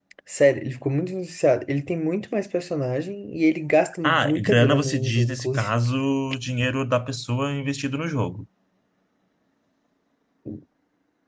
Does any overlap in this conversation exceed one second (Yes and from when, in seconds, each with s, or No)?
Yes, from 4.0 s